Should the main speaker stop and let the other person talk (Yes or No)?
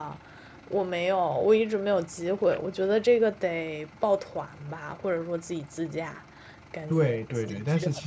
Yes